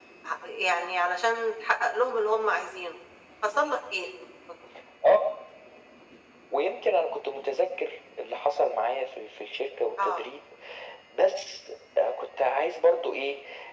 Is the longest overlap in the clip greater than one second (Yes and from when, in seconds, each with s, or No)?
No